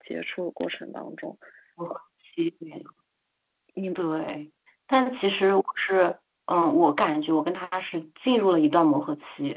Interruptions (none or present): none